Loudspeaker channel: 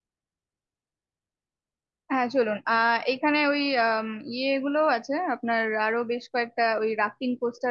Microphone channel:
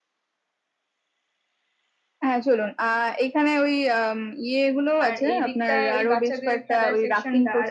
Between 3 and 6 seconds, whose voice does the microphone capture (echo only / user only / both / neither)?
both